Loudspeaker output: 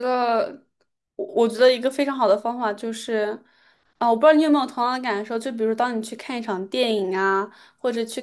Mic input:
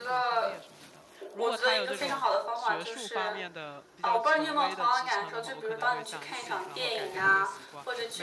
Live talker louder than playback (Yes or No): No